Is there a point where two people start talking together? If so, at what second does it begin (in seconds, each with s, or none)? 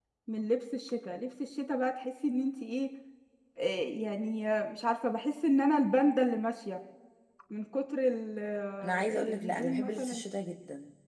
8.8 s